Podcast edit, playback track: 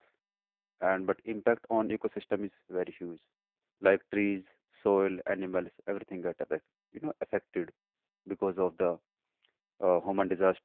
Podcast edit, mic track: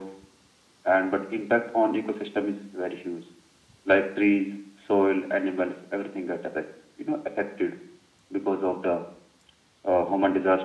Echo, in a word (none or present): present